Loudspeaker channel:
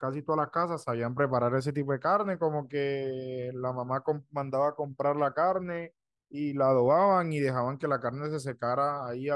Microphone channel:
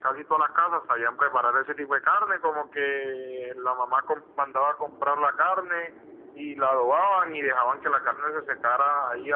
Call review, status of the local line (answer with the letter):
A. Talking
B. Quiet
B